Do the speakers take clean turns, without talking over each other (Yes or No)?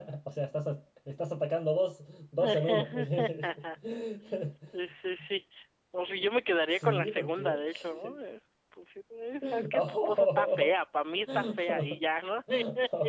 No